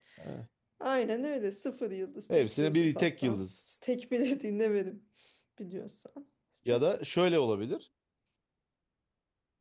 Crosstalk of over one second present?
Yes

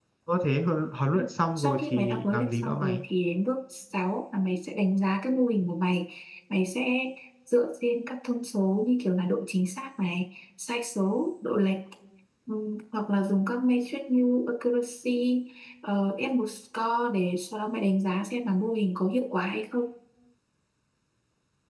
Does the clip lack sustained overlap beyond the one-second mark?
No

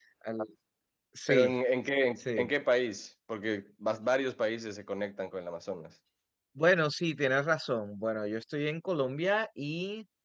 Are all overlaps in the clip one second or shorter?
Yes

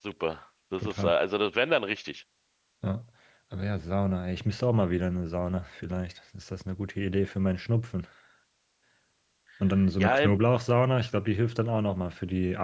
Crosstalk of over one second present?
No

